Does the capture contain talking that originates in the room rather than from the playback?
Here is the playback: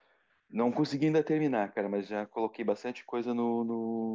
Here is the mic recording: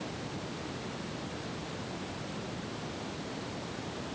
No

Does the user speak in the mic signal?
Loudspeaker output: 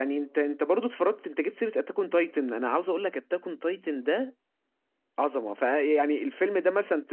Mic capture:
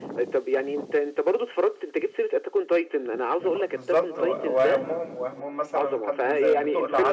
Yes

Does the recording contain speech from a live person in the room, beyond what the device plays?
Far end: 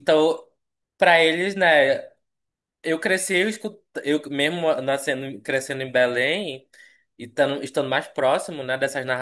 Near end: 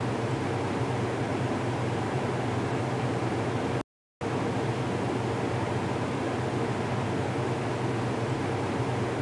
No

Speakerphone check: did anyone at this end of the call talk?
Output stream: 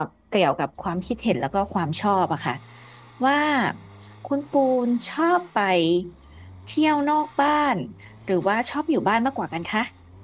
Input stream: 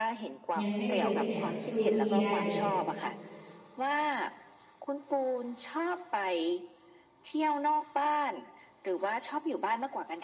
Yes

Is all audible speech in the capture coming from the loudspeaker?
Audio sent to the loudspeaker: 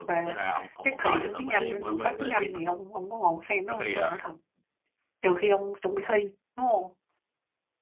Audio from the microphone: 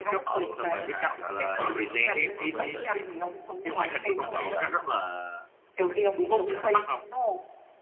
No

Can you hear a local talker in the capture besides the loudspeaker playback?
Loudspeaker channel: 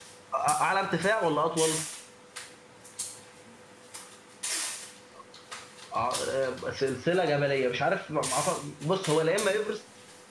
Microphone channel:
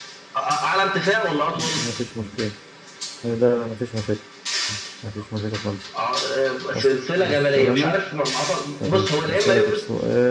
Yes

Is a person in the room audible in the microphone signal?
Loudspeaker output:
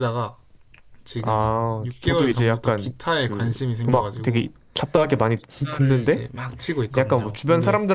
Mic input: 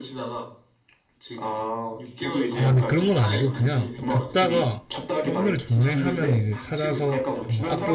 Yes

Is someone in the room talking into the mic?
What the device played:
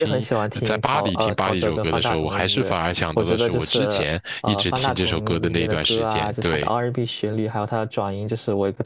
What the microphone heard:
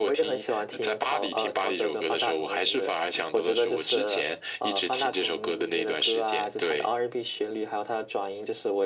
No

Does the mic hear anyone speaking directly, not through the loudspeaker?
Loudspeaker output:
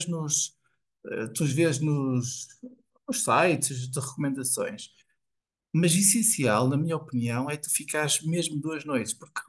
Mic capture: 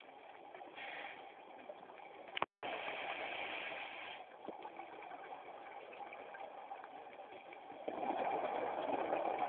No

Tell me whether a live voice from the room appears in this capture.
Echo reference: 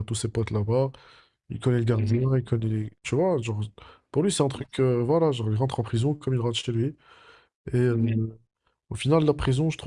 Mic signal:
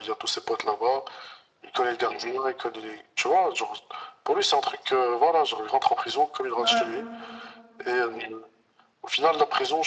Yes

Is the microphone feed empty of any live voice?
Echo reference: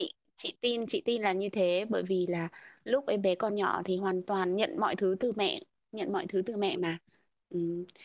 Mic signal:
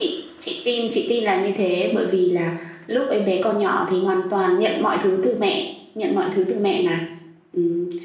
Yes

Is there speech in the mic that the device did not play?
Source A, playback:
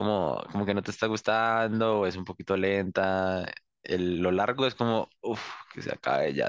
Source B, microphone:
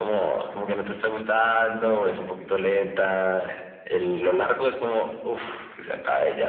No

